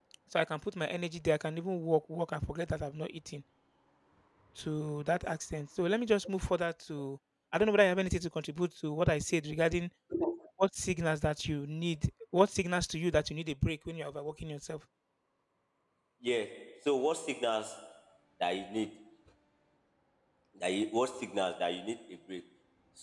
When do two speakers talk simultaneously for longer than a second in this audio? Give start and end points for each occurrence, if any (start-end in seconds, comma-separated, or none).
none